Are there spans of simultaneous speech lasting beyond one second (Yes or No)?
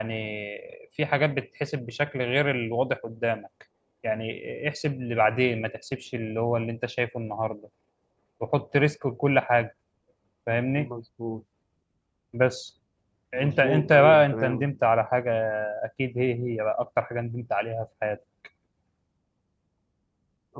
Yes